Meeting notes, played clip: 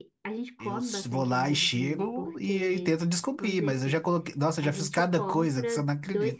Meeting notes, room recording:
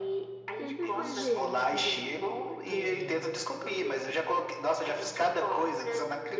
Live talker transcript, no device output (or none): Tenta fazer desse jeito que eu tô te falando.